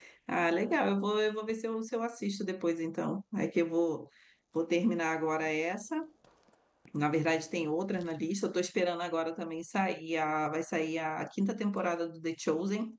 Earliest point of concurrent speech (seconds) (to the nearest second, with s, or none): none